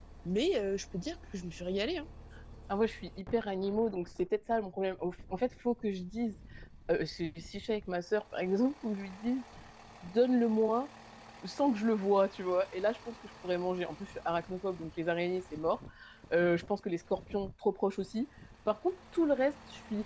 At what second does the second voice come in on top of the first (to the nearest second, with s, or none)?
none